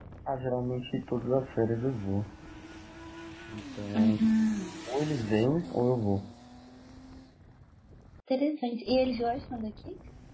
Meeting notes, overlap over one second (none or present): none